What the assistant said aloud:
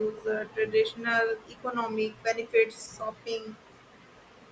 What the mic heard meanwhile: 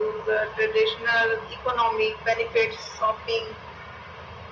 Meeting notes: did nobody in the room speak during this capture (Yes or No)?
Yes